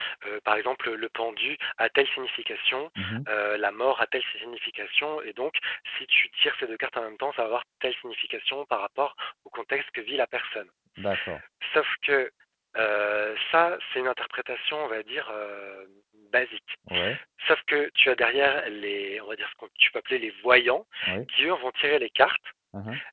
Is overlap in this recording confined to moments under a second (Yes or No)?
Yes